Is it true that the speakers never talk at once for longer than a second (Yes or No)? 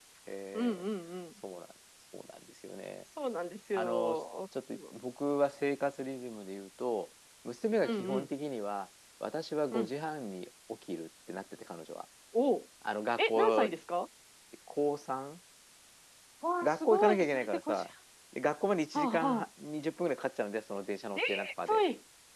No